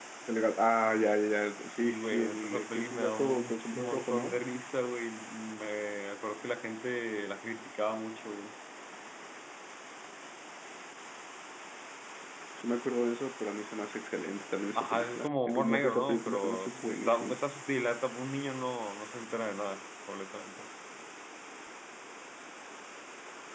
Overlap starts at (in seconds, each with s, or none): 1.6 s